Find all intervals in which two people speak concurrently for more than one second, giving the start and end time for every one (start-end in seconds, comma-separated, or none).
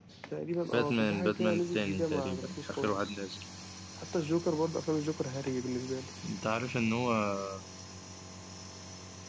0.7-3.2